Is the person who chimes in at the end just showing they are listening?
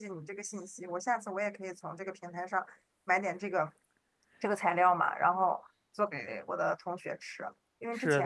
Yes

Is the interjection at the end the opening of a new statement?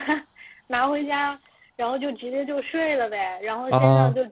No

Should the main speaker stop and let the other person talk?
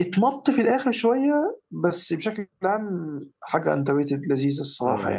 Yes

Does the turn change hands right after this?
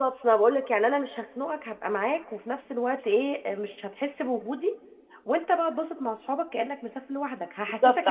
Yes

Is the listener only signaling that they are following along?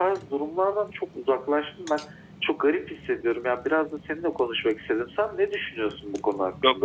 No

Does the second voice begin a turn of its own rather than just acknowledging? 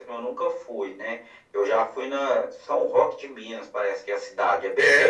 Yes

